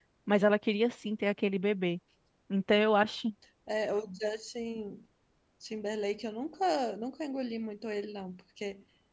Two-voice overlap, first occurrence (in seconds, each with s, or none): none